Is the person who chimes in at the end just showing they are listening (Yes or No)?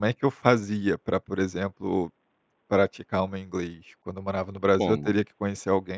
Yes